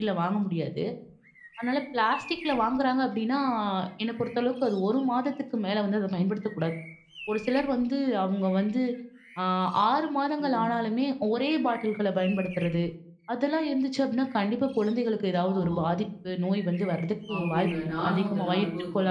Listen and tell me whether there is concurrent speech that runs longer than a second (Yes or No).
Yes